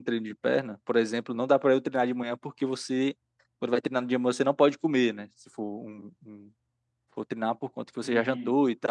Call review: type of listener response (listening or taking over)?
listening